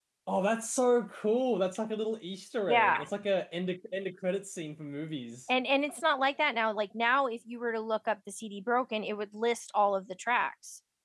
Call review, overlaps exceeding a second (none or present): none